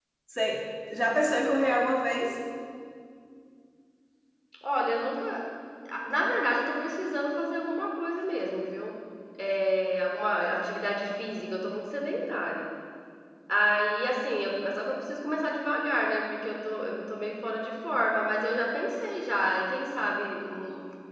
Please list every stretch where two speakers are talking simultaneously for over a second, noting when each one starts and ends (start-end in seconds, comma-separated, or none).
none